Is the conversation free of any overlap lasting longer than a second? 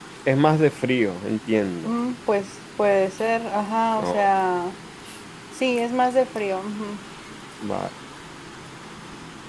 Yes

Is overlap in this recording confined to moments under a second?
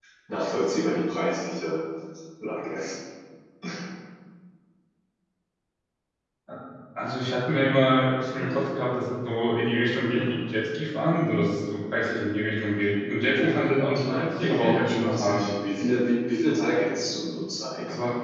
No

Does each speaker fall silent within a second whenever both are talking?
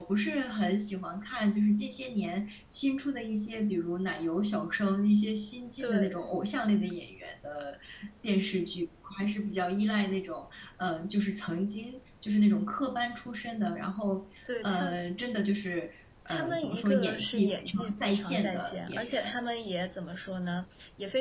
No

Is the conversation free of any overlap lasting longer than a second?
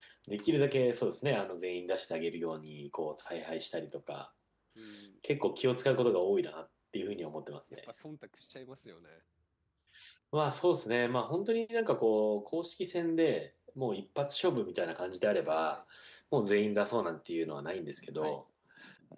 Yes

